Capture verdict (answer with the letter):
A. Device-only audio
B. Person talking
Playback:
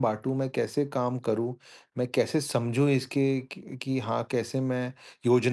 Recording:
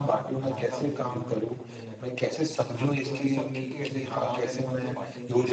B